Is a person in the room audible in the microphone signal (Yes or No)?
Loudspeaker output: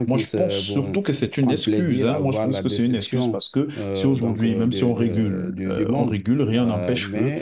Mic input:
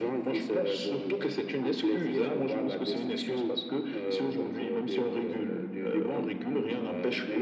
No